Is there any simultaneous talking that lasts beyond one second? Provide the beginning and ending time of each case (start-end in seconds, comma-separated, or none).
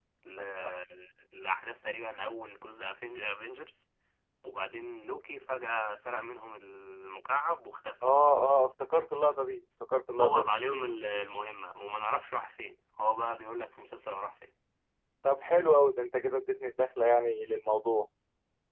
none